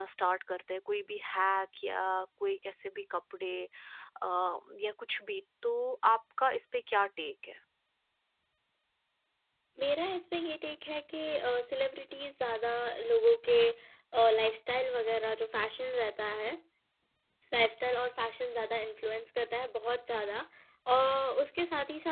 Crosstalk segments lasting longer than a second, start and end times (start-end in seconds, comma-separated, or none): none